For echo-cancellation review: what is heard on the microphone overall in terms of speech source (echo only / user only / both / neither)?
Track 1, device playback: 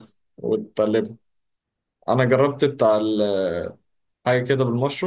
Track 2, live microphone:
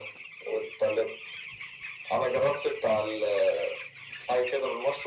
echo only